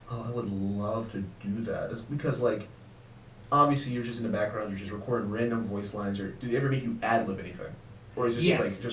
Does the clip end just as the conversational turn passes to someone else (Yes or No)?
Yes